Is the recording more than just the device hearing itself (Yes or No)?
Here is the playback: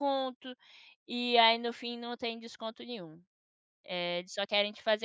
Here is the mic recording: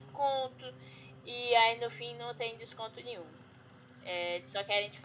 No